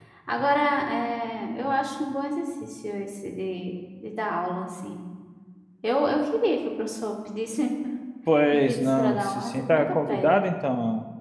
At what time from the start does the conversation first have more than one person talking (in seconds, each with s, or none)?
8.5 s